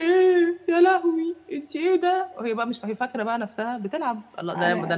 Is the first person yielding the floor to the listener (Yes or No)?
No